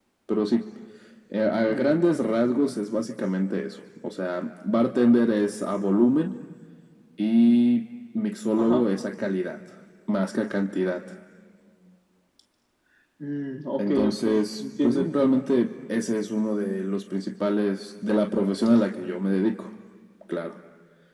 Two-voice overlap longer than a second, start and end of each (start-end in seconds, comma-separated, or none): 13.8-15.4